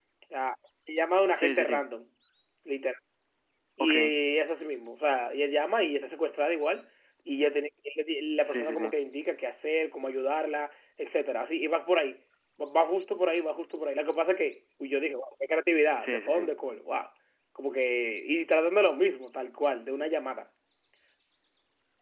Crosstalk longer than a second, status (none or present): none